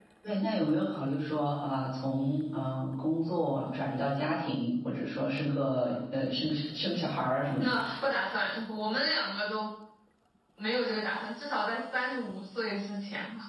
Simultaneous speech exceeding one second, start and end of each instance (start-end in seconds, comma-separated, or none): none